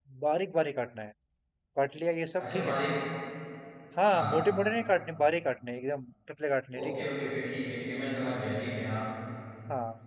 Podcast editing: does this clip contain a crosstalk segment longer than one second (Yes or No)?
No